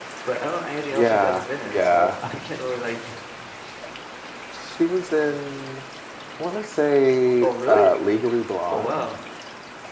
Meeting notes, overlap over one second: present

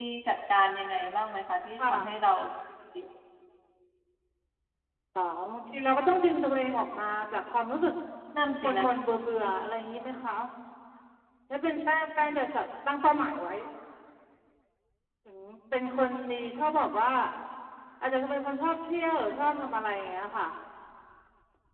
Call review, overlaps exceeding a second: none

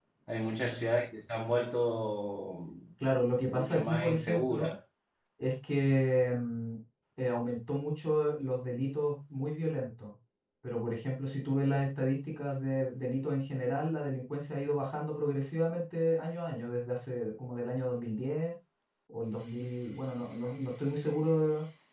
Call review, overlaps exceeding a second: present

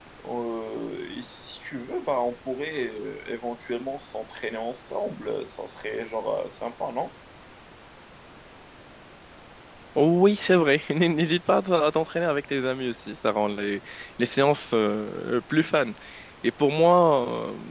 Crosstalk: none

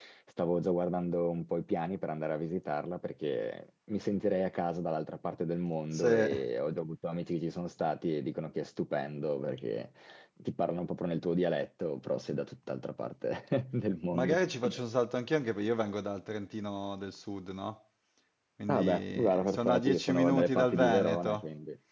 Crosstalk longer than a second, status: present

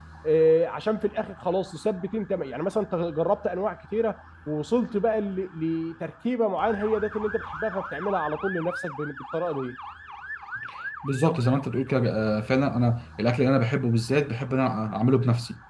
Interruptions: none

